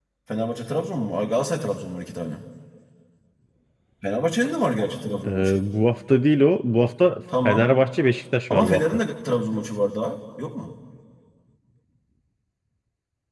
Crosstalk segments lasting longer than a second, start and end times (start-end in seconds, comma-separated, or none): none